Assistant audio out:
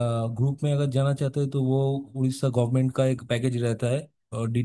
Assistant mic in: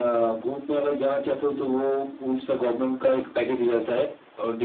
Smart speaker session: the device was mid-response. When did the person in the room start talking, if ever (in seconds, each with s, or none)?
none